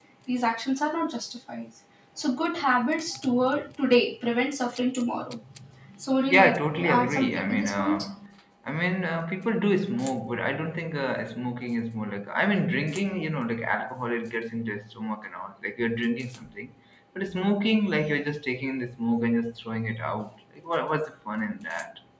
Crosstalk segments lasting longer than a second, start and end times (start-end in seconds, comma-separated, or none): 6.3-8.0